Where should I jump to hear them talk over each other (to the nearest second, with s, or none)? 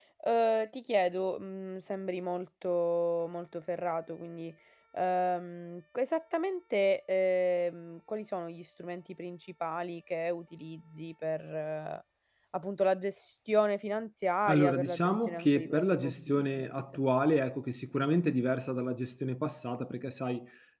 14 s